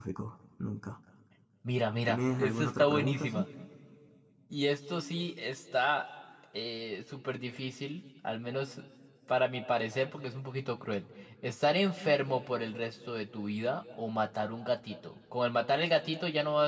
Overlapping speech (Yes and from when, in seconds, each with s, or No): Yes, from 2.1 s